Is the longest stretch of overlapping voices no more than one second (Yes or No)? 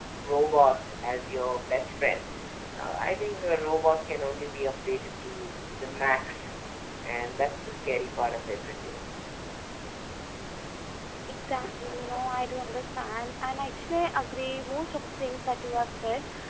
Yes